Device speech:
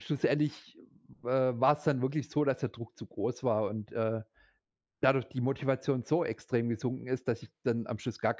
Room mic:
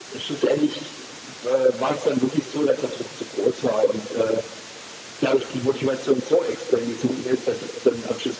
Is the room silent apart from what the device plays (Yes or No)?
Yes